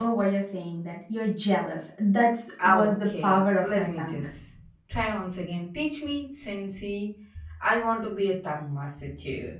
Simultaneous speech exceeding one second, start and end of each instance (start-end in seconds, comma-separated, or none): 2.6-4.2